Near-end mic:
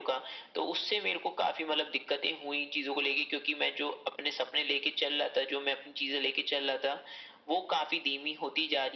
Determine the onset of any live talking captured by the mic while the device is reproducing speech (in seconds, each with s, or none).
none